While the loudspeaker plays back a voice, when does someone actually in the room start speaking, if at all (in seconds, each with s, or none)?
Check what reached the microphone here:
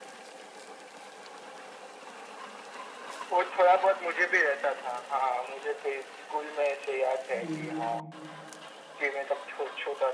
7.4 s